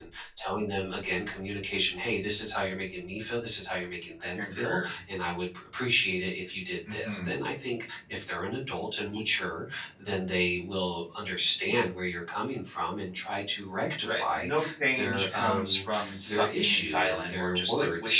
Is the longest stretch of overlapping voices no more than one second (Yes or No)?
No